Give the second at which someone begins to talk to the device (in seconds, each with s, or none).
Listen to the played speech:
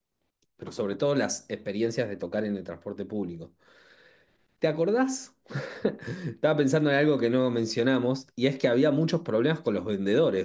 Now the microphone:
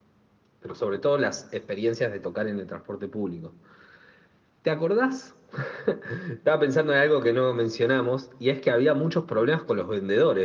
none